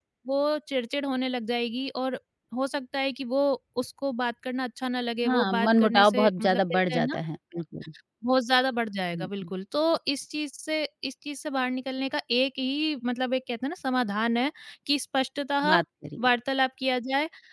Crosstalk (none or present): present